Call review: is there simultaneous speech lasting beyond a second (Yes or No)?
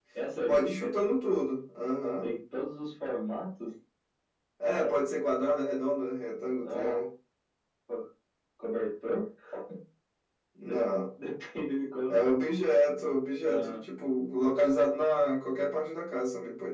No